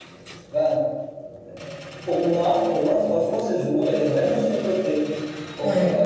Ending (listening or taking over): listening